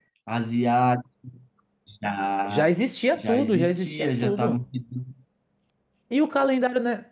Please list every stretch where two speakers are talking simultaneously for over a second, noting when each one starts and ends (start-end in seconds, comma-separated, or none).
3.1-4.6